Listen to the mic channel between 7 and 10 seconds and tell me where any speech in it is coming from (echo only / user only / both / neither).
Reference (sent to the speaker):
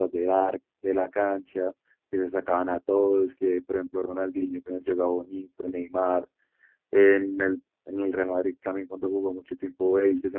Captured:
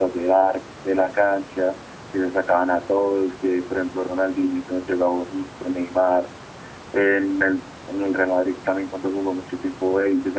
echo only